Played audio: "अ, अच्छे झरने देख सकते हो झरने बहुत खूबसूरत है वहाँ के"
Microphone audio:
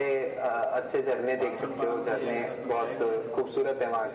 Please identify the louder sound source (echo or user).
echo